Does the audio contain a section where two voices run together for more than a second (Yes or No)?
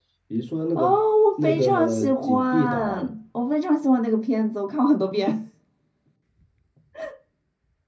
Yes